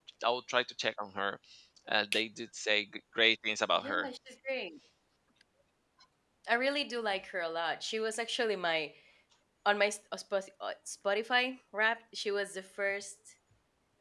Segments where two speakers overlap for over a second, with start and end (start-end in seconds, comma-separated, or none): none